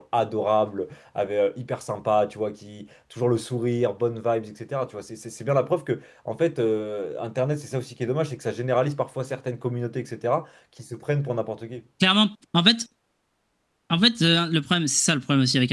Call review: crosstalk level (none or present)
none